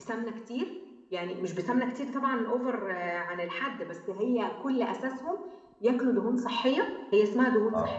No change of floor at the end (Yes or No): Yes